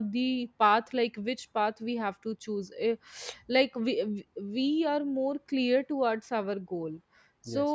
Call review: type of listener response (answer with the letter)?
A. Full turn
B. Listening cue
B